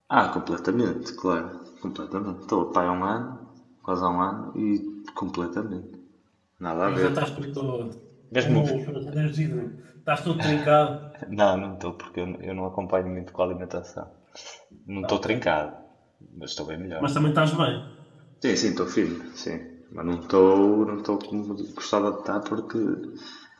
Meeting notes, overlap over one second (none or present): none